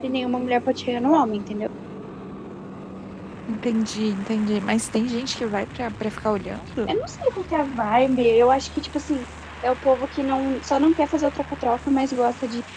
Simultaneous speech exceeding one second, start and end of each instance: none

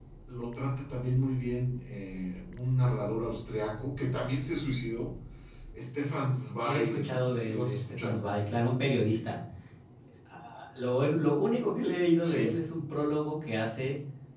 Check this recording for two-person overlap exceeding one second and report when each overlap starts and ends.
6.6-8.2

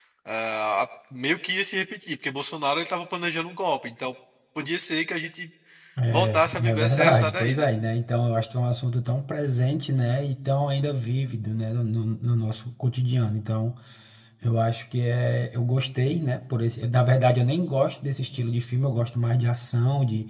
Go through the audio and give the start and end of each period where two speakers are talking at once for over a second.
6.1-7.7

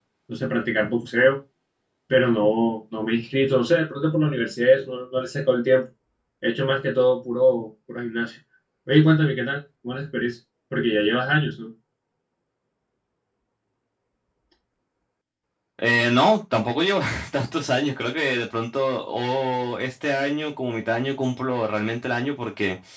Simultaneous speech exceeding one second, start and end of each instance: none

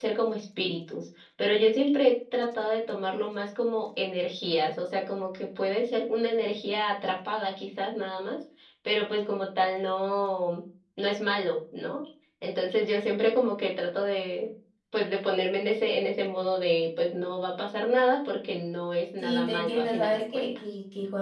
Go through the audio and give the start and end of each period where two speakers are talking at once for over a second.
19.2-20.6

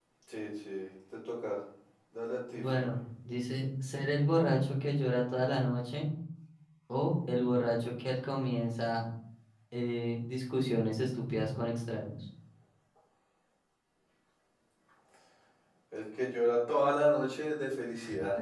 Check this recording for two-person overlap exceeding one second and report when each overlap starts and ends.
none

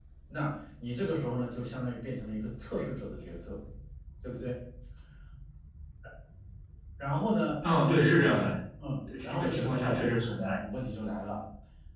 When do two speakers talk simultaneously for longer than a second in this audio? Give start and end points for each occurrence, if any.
9.2-10.6

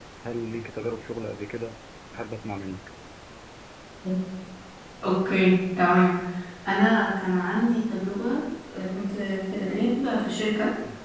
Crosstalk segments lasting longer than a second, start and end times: none

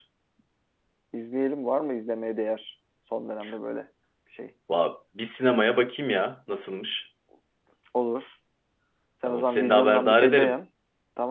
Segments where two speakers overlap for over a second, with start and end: 9.2-10.5

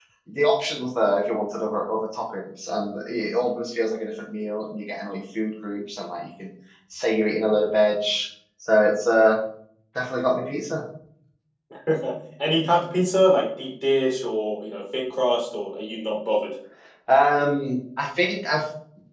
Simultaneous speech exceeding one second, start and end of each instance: none

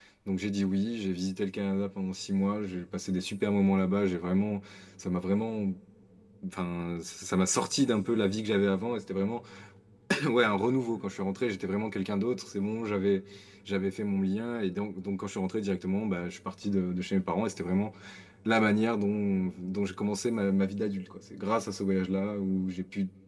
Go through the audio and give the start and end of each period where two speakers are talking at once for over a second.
none

